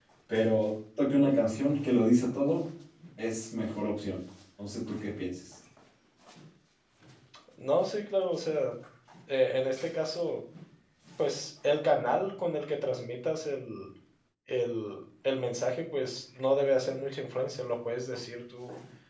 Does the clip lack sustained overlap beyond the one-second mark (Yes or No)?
Yes